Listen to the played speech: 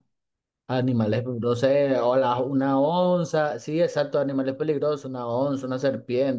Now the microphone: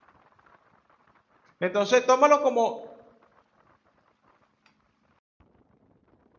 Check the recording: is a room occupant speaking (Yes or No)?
Yes